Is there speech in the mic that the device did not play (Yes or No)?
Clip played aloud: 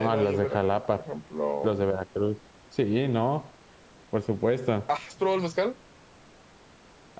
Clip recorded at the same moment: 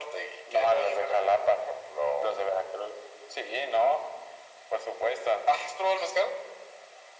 No